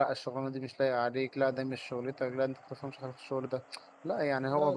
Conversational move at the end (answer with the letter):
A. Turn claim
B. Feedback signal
B